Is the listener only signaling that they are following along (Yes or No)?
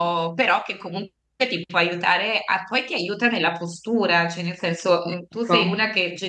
Yes